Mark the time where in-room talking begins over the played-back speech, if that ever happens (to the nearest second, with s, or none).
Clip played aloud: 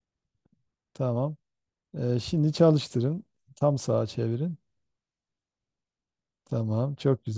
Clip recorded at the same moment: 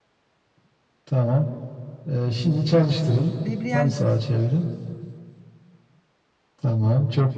3 s